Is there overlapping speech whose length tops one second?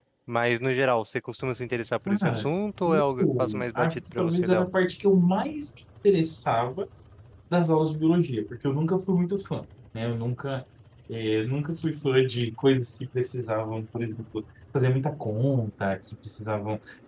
Yes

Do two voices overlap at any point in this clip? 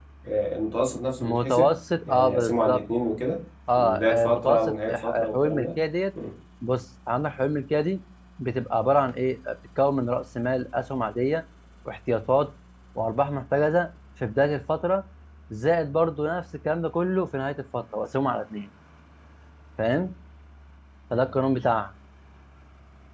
Yes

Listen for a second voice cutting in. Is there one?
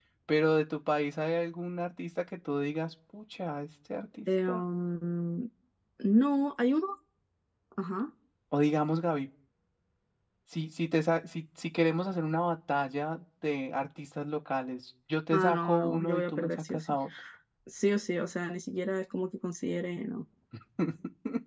Yes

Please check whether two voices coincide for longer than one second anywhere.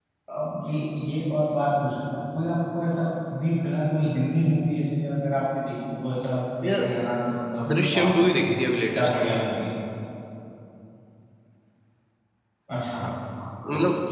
No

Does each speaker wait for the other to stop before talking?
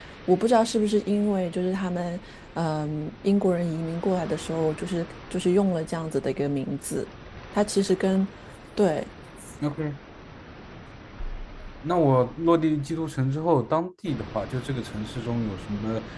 Yes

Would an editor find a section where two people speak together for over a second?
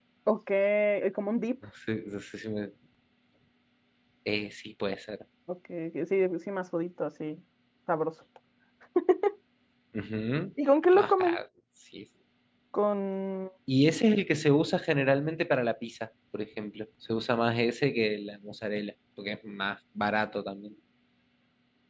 No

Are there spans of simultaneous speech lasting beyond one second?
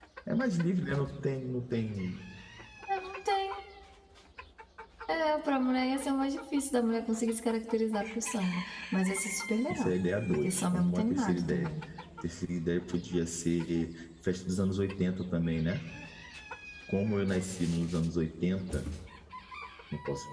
Yes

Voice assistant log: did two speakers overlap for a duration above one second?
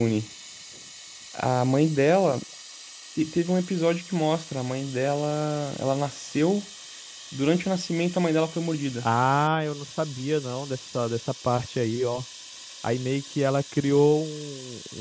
No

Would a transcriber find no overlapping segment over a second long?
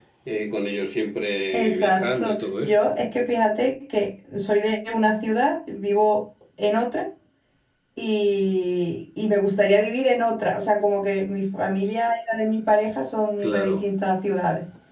No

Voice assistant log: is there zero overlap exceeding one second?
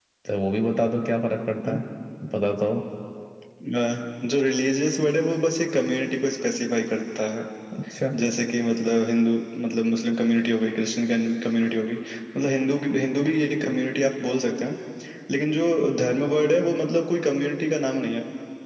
Yes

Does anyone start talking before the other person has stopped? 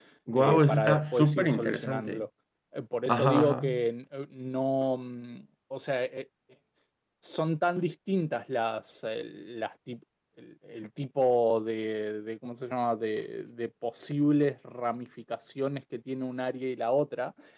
Yes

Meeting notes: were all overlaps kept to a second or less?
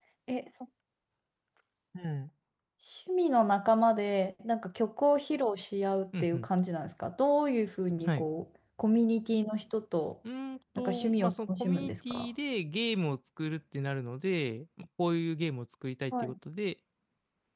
No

